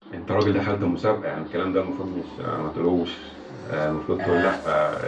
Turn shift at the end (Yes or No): No